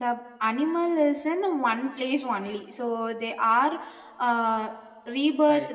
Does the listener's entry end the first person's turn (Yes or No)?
No